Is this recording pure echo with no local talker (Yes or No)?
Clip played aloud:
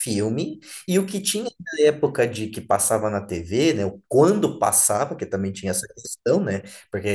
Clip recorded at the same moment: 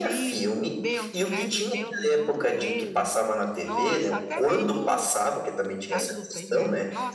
No